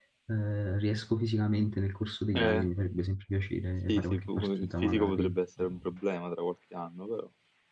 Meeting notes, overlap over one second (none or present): present